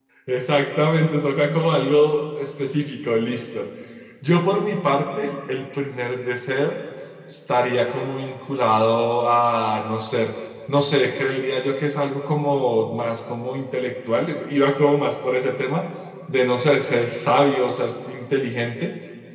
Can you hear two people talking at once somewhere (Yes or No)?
No